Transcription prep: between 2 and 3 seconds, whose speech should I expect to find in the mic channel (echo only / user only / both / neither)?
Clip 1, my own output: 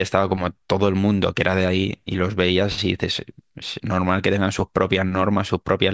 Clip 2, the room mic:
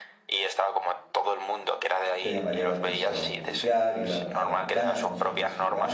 both